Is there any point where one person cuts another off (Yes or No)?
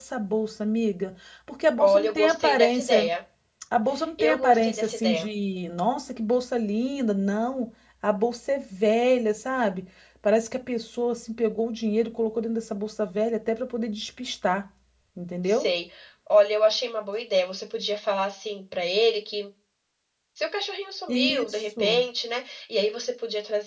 Yes